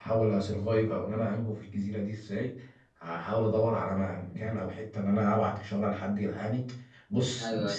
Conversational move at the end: listening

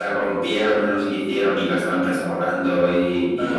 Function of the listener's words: listening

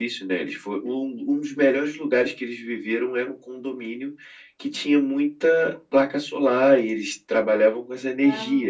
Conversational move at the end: listening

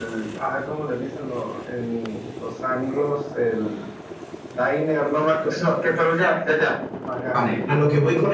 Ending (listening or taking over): taking over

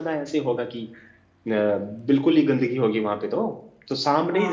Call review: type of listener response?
listening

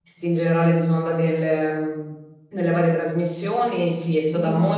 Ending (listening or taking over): listening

